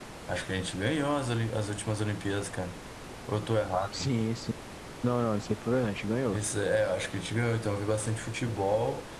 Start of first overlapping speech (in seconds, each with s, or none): none